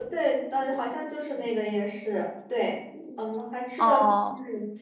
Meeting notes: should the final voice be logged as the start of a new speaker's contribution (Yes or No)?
No